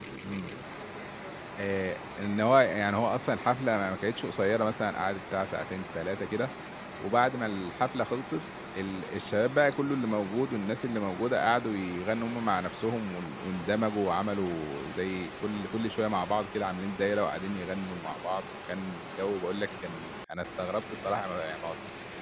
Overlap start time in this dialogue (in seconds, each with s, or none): none